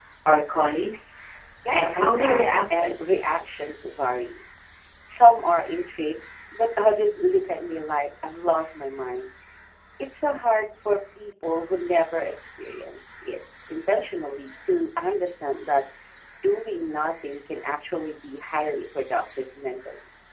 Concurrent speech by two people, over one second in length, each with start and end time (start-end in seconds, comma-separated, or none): 1.7-2.9